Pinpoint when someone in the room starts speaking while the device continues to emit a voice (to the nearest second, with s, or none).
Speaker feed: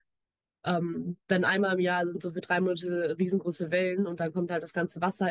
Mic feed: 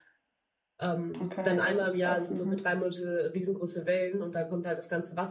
1 s